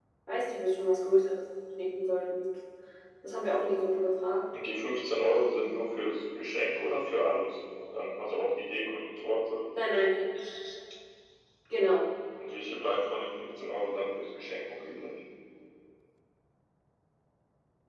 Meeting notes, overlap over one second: none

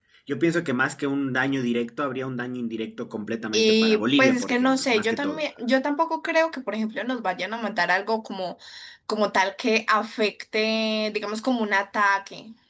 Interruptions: present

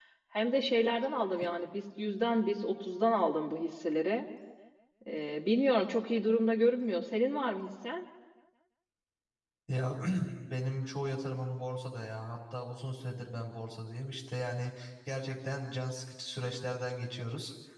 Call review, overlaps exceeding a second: none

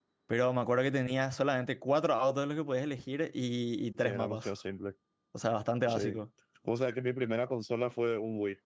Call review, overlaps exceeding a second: none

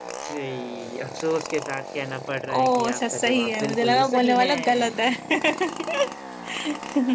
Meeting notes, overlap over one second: present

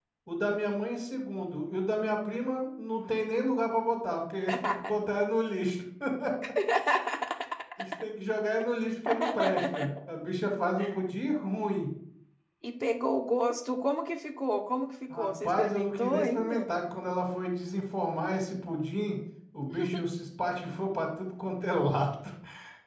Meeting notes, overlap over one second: present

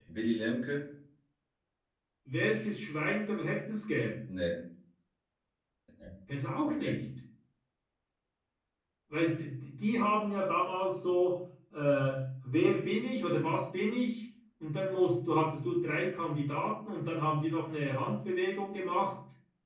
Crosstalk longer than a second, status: none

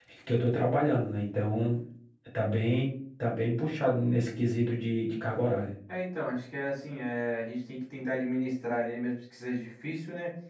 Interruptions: none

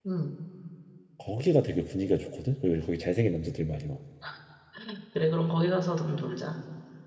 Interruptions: none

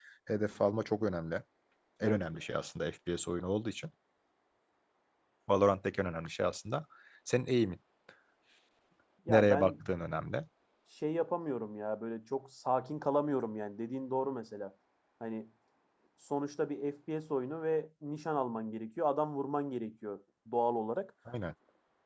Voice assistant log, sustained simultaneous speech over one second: none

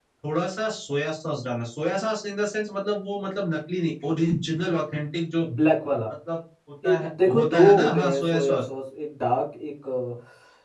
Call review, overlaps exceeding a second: present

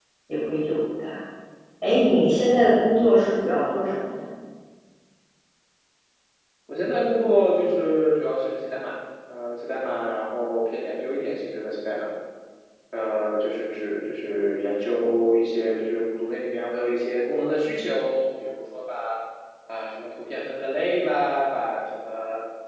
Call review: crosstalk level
none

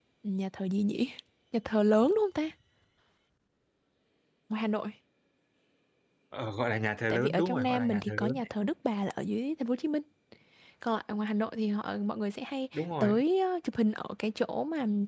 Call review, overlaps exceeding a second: present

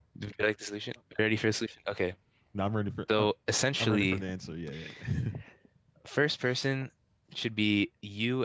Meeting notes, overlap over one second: none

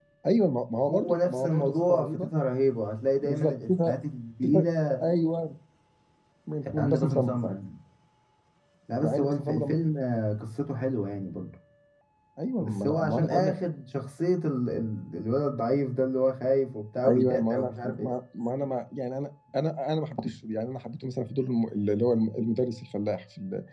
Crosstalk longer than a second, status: present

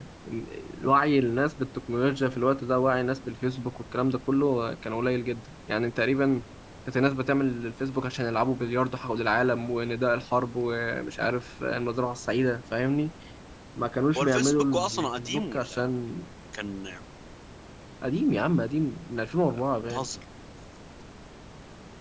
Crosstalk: present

